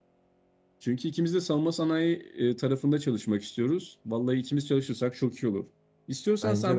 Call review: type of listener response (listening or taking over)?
listening